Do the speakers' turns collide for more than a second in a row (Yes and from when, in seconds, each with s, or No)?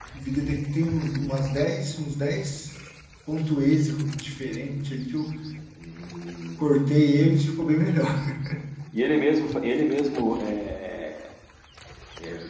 No